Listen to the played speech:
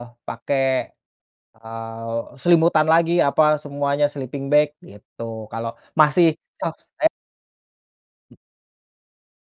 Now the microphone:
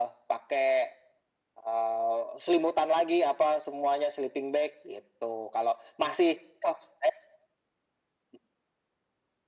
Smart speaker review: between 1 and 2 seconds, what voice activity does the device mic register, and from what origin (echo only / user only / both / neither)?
echo only